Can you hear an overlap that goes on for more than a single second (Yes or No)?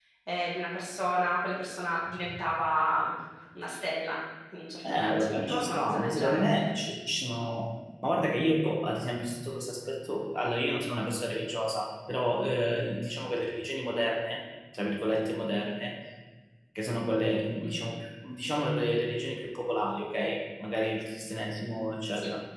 Yes